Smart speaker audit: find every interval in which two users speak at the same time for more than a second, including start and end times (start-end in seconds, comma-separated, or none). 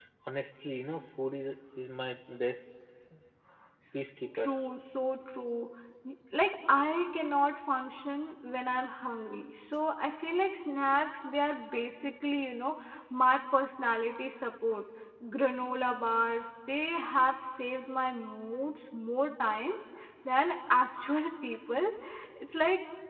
none